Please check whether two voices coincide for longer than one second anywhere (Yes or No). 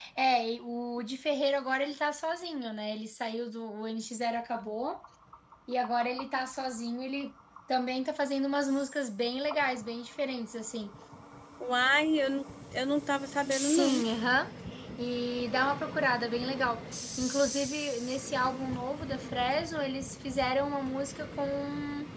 No